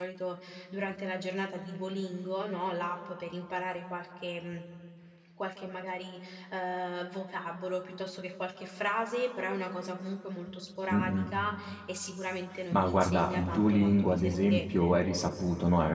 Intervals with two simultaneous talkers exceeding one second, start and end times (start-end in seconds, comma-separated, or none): 12.7-14.9